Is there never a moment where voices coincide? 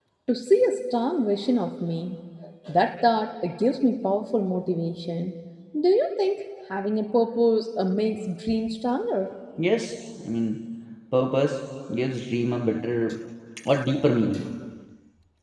Yes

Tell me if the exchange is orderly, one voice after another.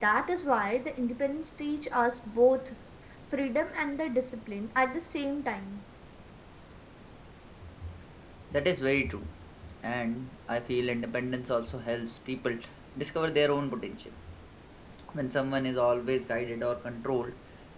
Yes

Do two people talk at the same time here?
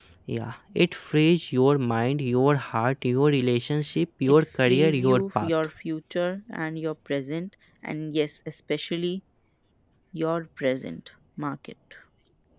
Yes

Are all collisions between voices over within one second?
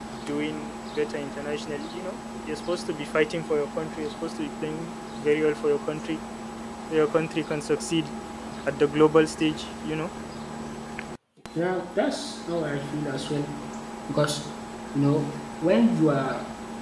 Yes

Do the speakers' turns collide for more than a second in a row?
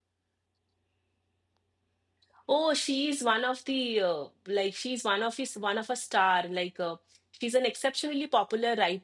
No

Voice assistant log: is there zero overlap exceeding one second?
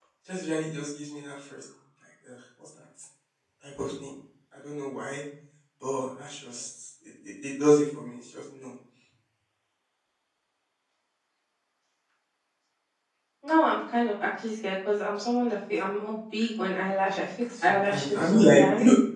No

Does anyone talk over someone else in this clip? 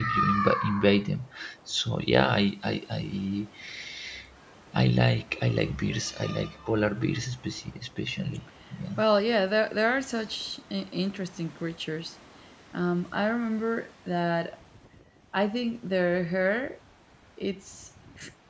No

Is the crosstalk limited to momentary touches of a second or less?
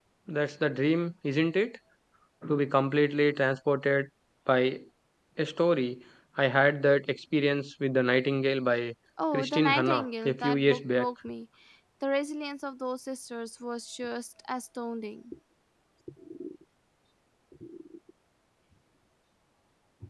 No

